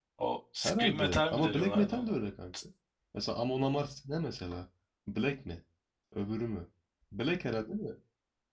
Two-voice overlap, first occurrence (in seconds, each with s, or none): 0.6 s